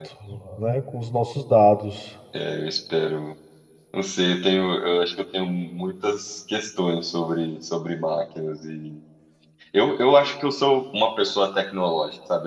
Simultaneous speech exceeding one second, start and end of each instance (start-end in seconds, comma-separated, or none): none